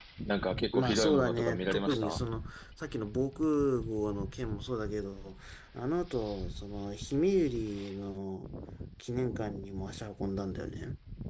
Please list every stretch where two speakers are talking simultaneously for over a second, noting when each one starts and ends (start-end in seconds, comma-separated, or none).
0.7-2.2